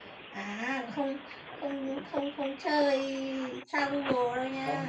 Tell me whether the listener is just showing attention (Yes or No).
No